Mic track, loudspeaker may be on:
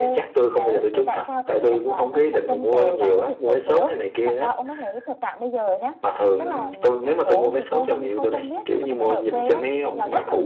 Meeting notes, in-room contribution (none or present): present